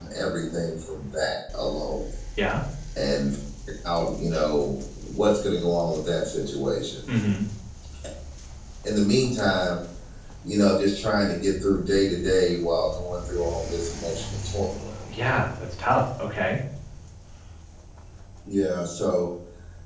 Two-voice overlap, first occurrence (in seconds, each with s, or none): none